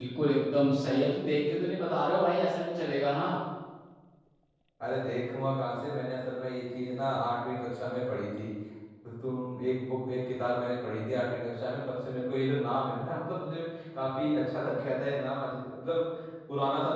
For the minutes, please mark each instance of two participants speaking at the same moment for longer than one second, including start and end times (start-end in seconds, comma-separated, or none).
none